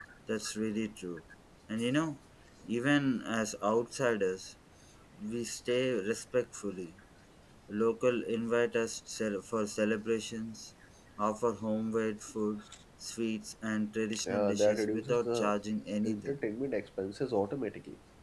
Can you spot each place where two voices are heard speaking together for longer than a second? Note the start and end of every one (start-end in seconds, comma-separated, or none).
14.3-15.5